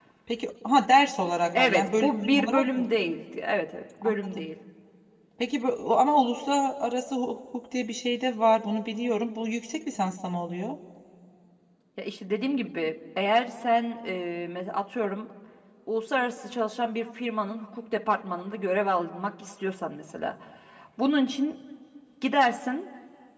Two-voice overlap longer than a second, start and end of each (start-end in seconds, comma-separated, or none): 1.5-2.9